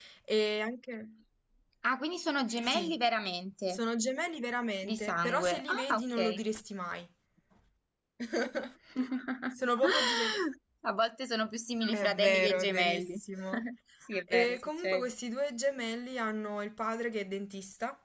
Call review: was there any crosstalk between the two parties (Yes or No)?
Yes